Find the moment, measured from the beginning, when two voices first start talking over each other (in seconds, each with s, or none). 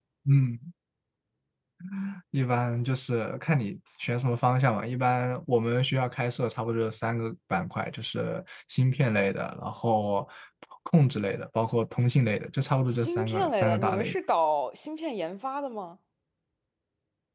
12.9 s